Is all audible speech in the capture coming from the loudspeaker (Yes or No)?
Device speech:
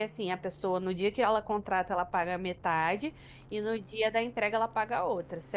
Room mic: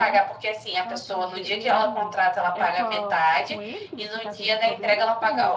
No